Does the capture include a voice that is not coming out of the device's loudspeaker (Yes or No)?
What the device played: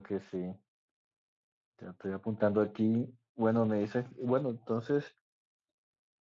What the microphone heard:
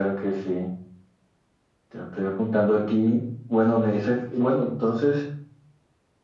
No